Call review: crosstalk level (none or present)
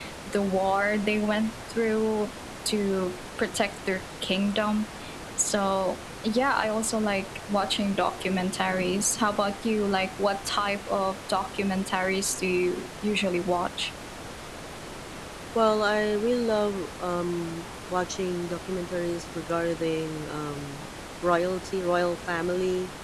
none